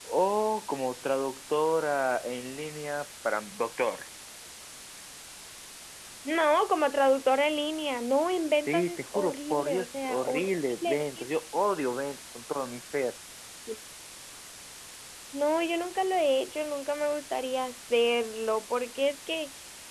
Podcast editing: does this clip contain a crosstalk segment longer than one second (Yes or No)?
Yes